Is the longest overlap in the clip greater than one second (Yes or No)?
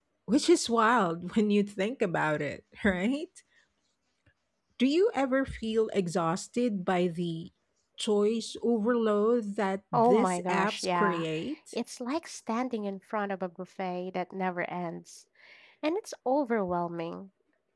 Yes